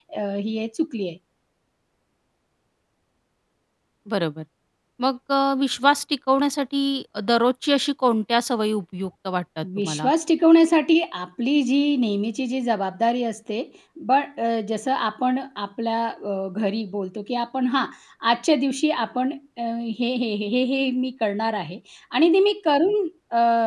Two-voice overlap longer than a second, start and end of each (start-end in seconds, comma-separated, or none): none